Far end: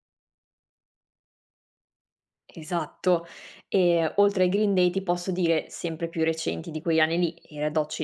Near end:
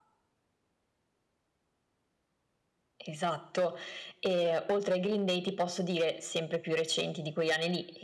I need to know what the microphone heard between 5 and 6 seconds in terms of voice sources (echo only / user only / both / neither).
echo only